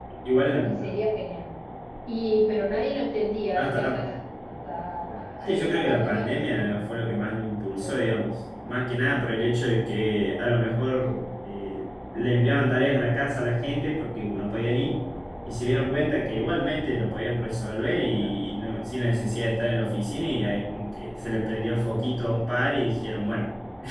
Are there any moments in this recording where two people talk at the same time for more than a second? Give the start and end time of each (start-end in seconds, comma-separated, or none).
5.5-7.1